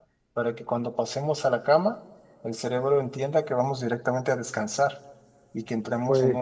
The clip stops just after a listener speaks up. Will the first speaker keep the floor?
Yes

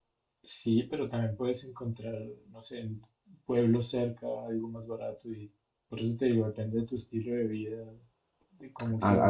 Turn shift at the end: Yes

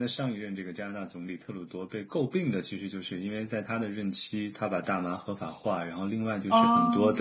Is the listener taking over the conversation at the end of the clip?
No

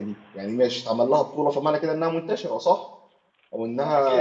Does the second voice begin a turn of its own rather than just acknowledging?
Yes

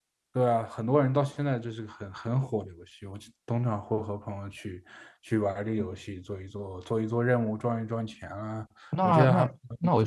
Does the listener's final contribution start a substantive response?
Yes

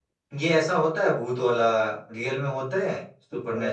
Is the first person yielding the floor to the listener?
Yes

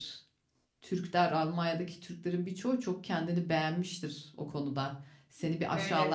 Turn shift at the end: No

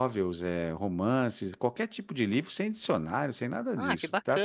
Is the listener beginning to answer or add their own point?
Yes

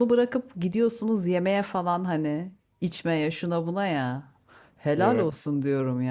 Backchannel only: Yes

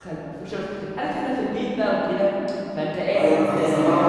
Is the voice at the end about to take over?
Yes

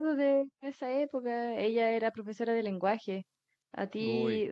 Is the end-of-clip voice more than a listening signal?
No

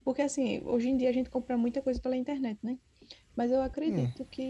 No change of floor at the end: Yes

